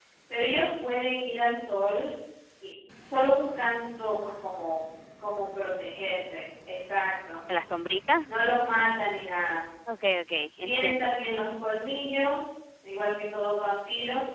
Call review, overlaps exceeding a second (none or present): none